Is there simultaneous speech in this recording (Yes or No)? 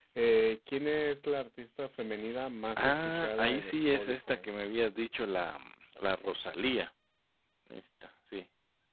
Yes